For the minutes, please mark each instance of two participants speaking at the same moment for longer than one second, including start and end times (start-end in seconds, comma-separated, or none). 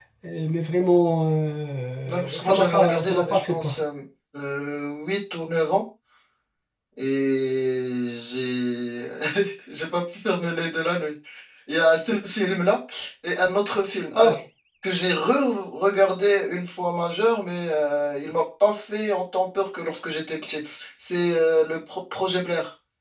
2.0-3.7